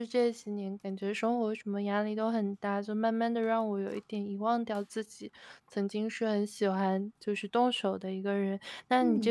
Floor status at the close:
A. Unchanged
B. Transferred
A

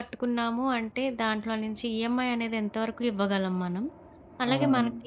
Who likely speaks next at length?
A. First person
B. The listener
A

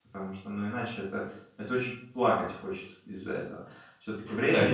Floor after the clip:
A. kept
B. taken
B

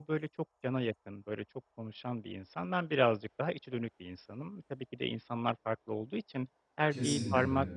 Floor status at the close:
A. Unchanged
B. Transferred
A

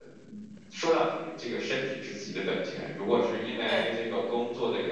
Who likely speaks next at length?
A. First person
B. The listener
A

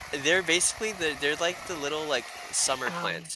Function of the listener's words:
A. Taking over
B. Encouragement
B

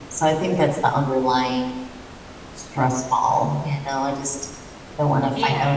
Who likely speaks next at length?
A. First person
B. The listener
A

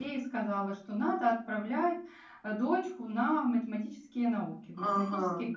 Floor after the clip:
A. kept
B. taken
B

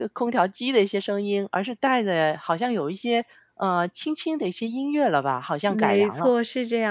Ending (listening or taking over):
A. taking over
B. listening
A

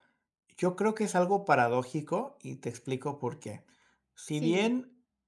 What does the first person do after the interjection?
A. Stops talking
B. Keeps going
B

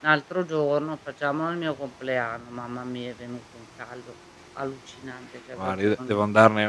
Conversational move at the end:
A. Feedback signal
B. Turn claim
B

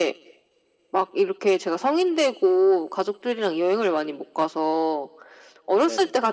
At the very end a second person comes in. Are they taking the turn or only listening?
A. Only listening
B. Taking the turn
A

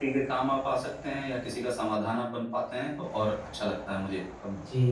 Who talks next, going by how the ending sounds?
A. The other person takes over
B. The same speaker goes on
A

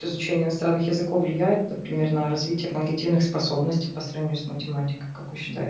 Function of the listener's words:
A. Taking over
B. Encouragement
A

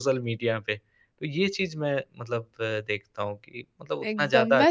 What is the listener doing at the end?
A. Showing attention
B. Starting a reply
B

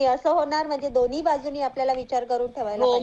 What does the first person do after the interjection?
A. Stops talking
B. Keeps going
A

